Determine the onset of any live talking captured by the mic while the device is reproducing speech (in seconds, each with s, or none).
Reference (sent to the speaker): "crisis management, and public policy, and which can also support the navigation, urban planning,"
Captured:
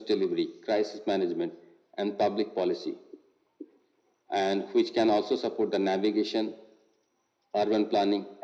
none